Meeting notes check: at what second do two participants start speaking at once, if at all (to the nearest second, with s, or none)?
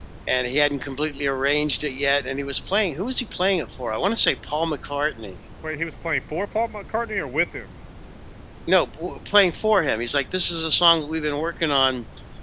none